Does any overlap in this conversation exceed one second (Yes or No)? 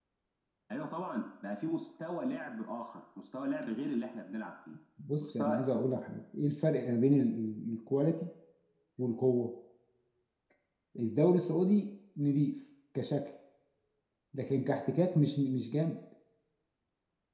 No